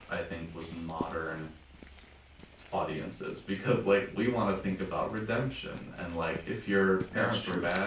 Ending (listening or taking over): listening